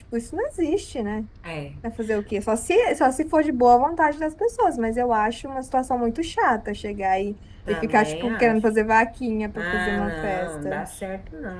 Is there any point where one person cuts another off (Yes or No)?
Yes